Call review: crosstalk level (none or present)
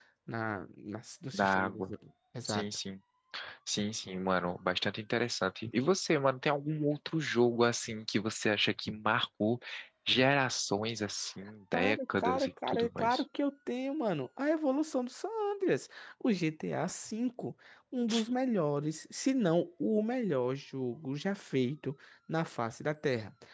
present